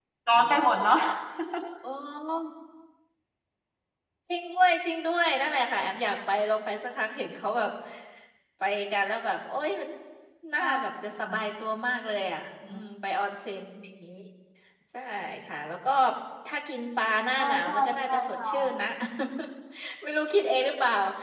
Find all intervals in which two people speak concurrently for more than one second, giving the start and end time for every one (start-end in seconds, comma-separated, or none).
17.4-18.6